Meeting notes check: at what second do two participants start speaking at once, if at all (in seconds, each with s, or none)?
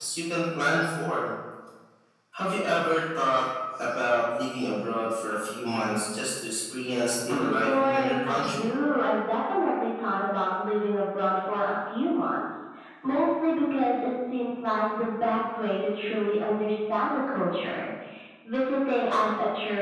7.3 s